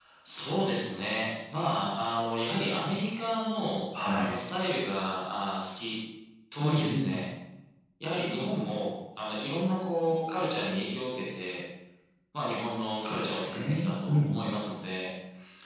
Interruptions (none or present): present